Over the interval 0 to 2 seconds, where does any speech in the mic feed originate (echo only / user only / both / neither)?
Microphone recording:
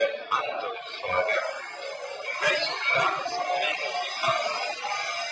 echo only